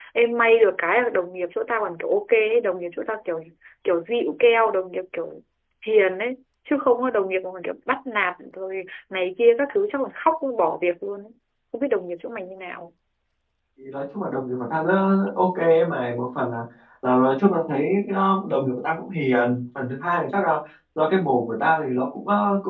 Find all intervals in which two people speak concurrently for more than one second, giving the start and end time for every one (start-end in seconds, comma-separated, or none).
none